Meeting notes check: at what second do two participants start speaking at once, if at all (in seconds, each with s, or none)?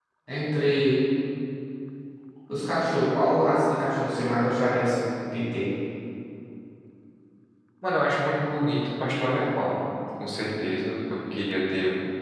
none